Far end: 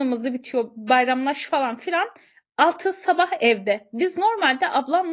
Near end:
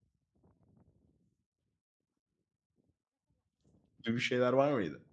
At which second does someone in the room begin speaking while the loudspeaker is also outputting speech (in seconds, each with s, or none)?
4.0 s